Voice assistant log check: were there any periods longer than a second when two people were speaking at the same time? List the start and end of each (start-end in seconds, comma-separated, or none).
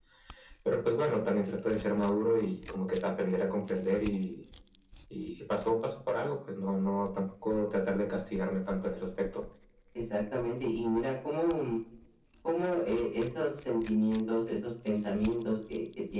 none